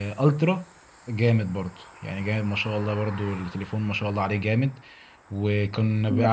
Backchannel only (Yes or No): Yes